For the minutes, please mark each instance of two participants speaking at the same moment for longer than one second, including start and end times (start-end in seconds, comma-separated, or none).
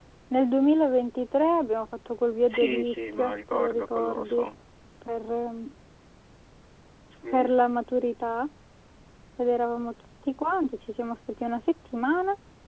2.5-4.5